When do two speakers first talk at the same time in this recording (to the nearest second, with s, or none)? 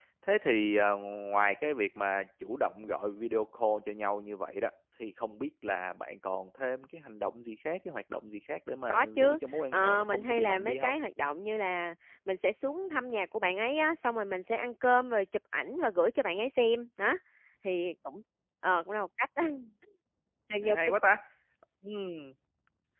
9 s